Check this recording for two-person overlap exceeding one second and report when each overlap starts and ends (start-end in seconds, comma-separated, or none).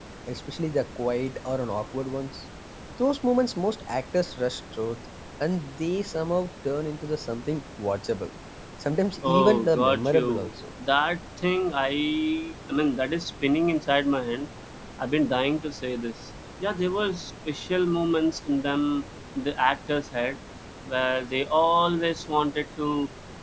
9.2-10.5